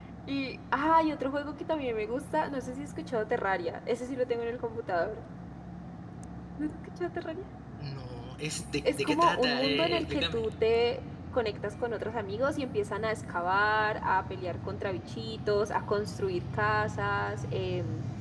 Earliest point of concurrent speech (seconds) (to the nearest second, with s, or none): 9 s